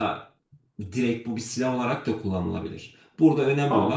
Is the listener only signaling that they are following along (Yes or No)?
Yes